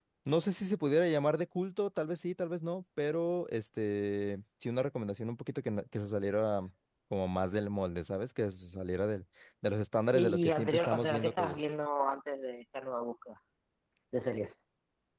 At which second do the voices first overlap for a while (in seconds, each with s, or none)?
10.1 s